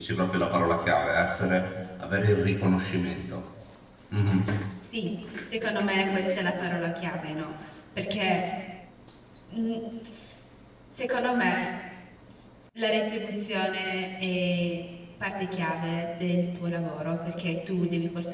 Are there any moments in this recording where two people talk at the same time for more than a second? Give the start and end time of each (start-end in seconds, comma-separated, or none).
none